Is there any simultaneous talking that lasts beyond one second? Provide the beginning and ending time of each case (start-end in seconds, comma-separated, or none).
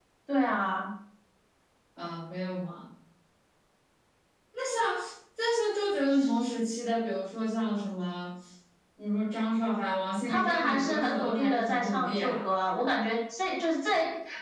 10.3-12.3